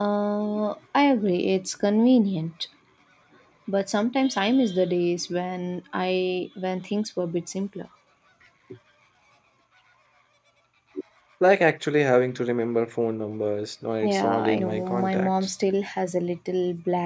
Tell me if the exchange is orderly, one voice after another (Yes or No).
No